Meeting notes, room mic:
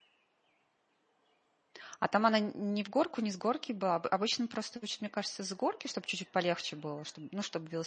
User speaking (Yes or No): Yes